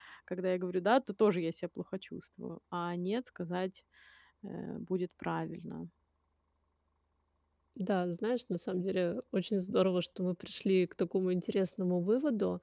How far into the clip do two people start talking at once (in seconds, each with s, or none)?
none